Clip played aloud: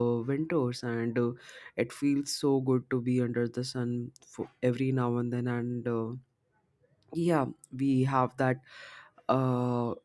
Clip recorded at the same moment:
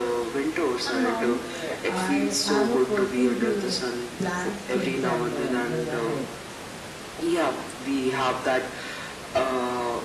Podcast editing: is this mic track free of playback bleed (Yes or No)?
No